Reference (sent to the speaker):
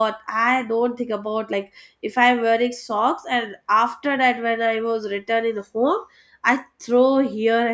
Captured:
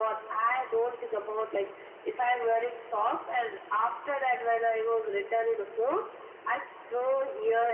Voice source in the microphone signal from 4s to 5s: echo only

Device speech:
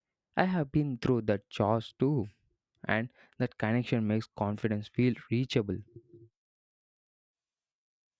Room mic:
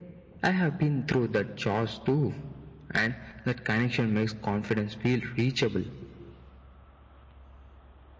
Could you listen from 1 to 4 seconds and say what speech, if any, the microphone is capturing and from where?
echo only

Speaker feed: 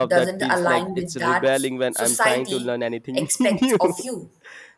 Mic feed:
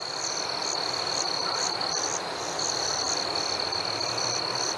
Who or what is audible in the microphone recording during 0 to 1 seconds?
neither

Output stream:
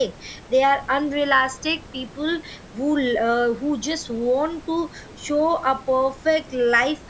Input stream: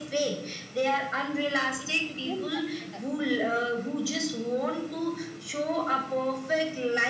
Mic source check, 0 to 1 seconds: echo only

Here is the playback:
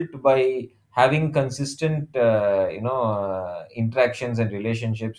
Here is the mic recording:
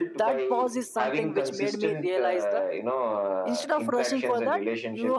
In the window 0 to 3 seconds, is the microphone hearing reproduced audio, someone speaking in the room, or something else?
both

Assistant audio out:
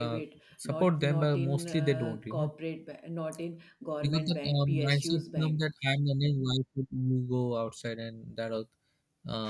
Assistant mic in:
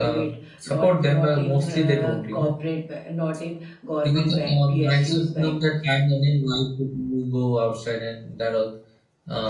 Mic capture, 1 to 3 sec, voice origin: echo only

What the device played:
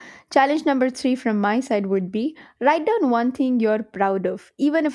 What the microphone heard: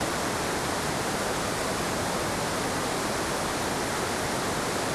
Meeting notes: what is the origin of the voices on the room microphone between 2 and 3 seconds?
neither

